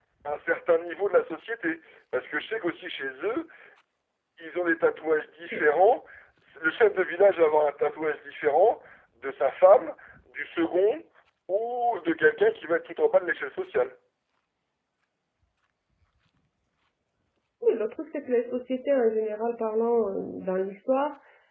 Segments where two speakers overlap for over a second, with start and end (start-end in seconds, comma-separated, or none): none